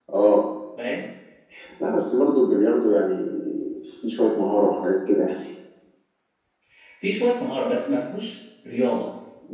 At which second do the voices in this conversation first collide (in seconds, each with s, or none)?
none